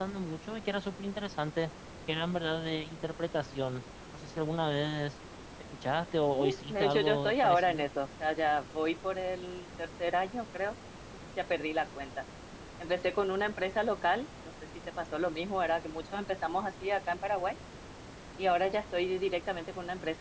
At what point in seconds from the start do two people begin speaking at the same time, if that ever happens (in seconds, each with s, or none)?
6.3 s